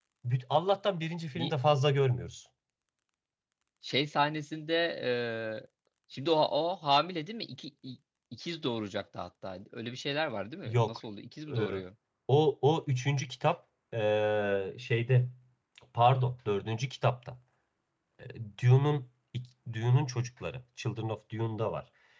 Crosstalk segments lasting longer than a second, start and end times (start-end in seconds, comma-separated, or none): none